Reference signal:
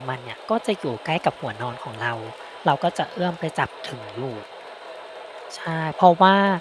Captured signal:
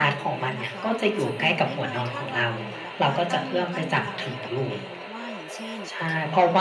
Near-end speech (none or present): present